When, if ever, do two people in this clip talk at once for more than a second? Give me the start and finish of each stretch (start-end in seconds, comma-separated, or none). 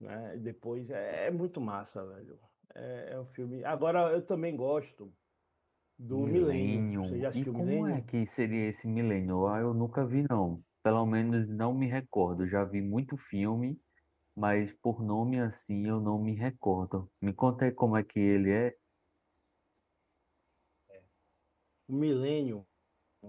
6.1-8.1